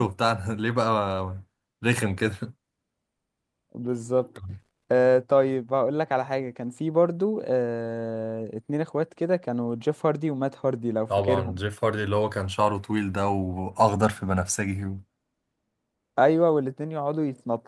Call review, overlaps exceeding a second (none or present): none